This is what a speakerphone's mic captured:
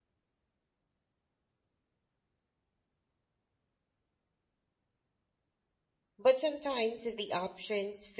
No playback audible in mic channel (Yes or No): Yes